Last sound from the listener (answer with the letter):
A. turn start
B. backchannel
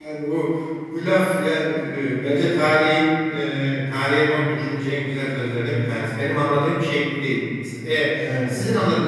B